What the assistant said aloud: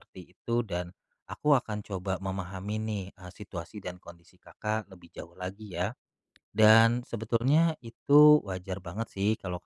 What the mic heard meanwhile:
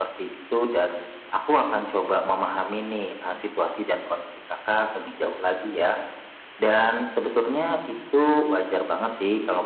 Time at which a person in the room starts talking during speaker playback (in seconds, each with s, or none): none